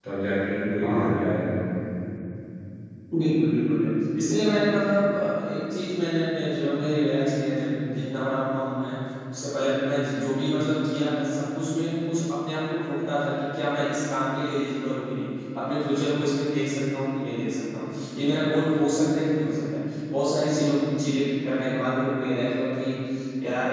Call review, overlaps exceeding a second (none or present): none